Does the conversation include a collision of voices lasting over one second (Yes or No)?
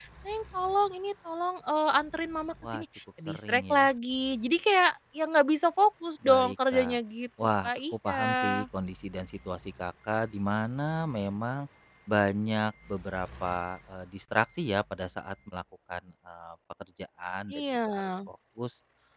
Yes